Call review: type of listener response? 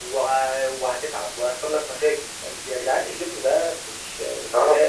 taking over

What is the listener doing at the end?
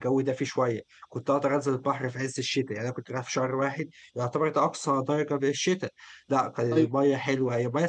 listening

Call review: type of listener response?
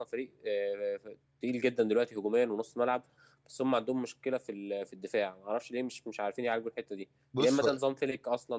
listening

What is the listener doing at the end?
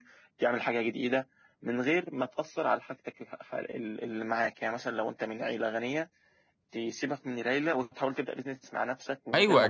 taking over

